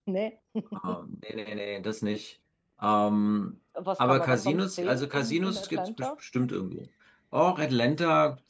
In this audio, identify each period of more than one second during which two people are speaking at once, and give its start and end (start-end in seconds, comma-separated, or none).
4.0-6.1